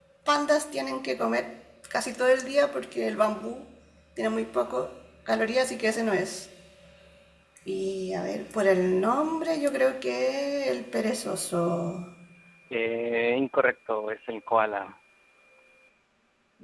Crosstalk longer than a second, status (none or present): none